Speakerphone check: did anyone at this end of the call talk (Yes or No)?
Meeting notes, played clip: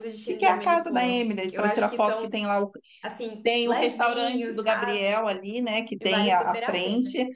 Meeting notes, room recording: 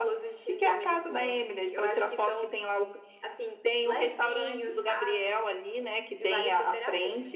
No